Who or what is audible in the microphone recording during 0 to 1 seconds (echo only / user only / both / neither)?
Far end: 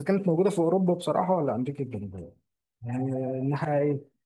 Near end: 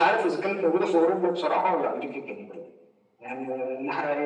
echo only